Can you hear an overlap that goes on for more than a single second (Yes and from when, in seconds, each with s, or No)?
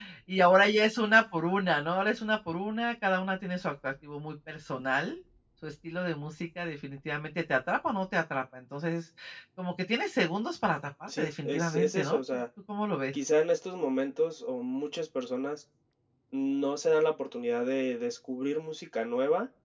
Yes, from 11.1 s